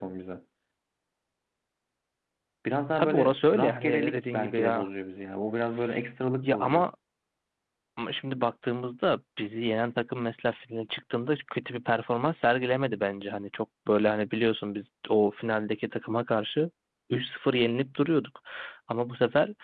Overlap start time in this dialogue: 3.0 s

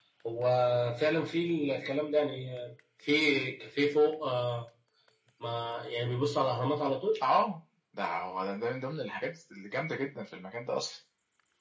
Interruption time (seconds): none

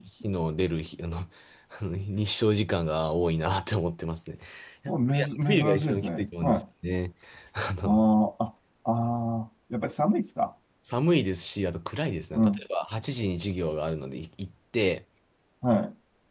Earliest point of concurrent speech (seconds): 4.9 s

